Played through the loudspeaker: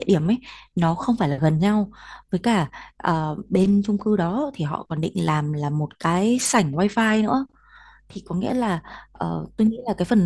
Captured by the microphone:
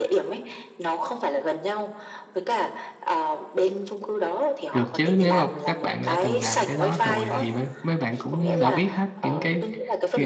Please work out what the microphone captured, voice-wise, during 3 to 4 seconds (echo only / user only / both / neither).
echo only